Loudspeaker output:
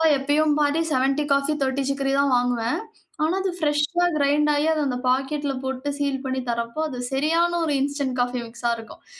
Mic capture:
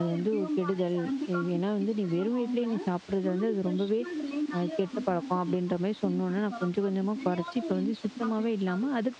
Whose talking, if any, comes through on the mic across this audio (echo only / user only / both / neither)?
both